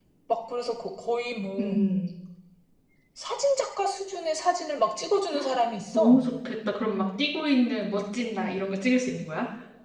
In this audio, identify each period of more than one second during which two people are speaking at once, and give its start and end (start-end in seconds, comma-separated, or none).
none